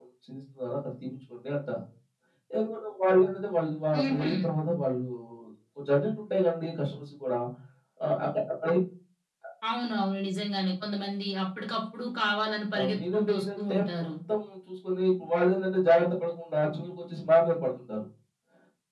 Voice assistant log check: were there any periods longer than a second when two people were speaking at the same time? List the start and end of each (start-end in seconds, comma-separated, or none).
12.8-14.0